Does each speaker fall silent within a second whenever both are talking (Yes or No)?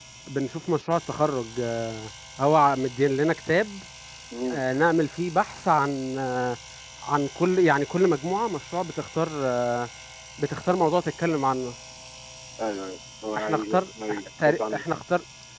No